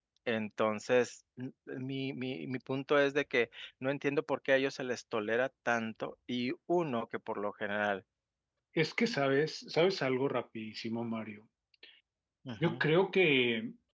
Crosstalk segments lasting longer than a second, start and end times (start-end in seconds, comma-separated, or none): none